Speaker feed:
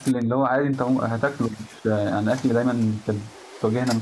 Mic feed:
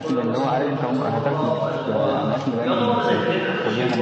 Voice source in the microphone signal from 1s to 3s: both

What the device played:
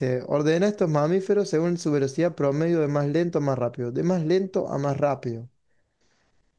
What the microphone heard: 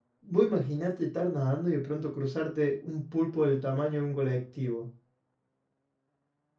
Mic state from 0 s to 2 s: user only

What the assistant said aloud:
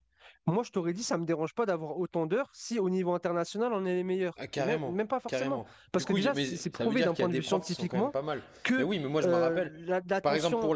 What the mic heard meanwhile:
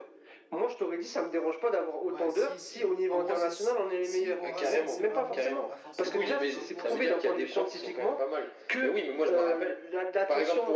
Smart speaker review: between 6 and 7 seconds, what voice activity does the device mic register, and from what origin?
both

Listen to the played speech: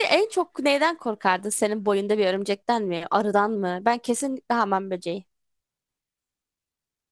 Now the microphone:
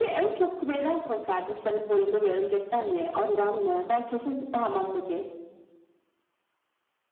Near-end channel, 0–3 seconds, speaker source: echo only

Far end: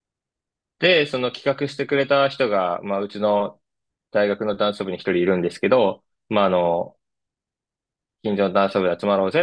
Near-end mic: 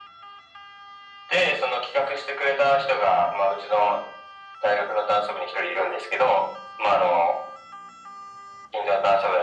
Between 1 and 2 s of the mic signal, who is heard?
echo only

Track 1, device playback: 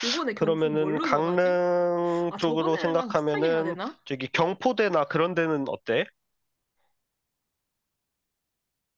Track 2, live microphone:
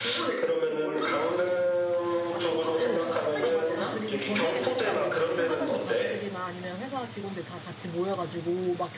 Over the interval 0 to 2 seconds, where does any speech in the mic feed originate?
echo only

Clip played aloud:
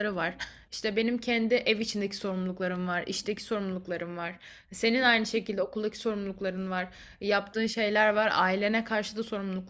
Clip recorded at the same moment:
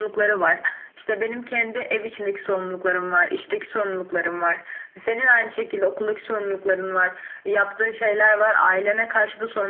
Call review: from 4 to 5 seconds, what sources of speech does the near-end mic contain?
echo only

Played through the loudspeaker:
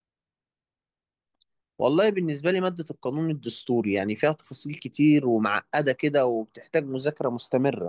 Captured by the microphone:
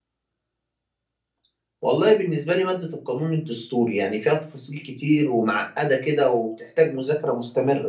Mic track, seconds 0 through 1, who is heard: neither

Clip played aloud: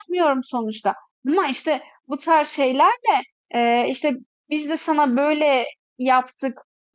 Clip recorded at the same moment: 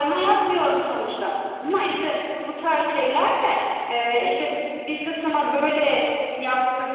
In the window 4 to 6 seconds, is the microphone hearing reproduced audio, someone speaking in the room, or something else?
echo only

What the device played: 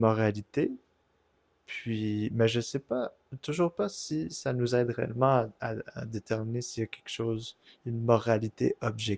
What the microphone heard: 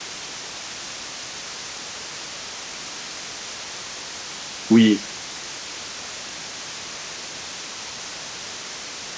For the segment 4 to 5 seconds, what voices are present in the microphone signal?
user only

